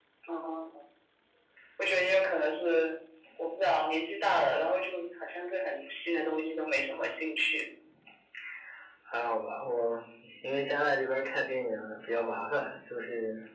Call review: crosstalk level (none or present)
none